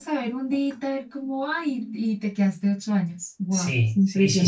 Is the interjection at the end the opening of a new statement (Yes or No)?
Yes